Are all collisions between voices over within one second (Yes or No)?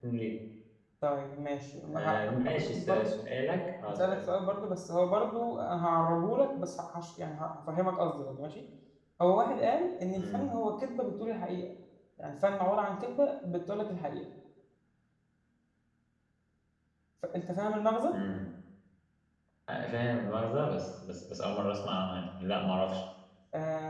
No